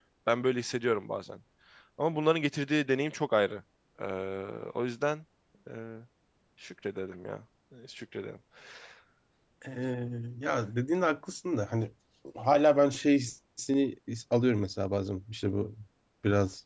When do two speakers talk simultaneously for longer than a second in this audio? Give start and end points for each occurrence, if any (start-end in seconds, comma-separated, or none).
none